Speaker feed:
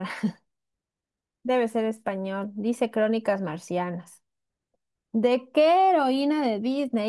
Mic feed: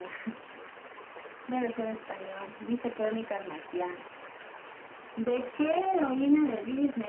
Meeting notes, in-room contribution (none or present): none